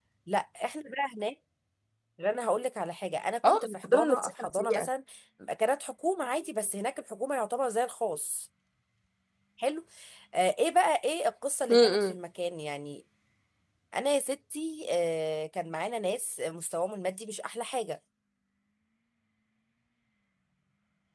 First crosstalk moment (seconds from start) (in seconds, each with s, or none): 3.5 s